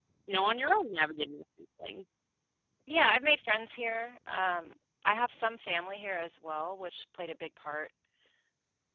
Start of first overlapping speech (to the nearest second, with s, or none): none